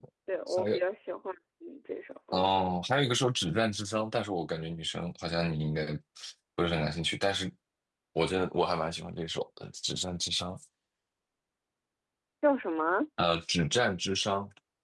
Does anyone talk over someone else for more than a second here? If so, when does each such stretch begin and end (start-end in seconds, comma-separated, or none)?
none